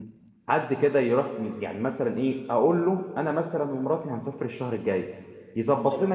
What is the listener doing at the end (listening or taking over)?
listening